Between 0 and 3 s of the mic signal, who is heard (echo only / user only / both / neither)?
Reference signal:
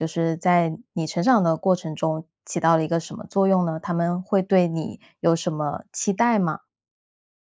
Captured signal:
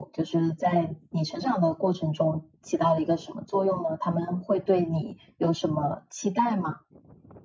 echo only